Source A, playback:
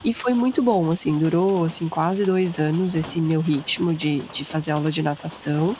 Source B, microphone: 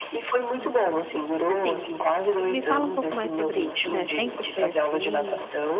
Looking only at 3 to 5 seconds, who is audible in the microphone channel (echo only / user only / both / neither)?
both